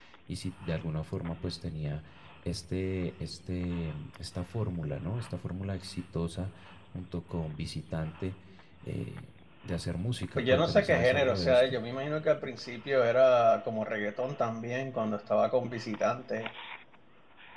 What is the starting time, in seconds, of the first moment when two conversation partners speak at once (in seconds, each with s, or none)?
10.4 s